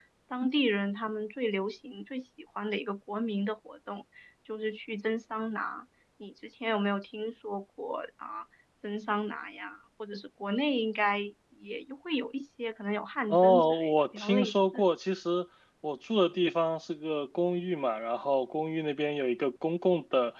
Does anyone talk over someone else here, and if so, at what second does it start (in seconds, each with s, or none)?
13.3 s